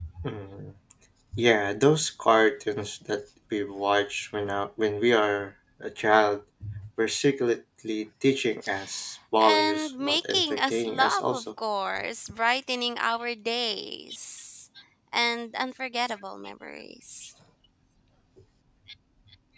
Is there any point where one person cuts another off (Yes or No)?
Yes